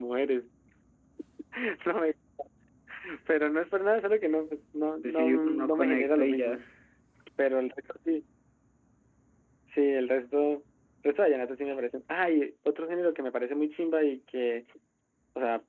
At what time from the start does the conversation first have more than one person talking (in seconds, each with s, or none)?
5.0 s